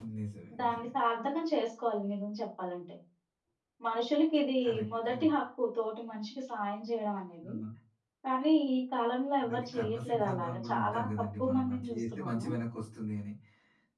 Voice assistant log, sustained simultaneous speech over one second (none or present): present